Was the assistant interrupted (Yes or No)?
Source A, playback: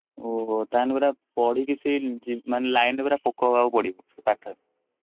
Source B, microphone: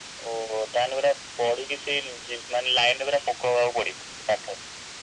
No